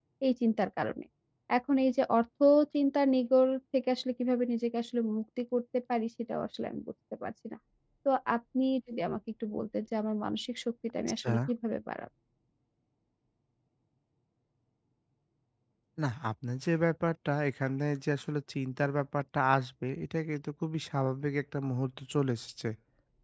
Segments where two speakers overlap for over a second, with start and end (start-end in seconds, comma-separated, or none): none